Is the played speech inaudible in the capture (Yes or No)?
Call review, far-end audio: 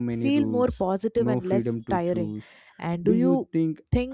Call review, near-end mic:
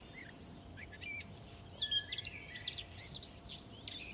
Yes